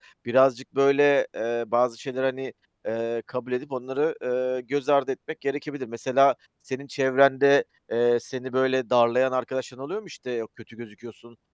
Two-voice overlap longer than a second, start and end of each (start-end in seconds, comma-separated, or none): none